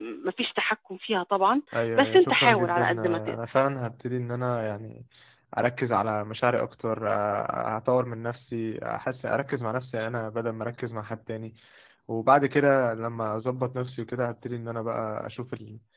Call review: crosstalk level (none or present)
present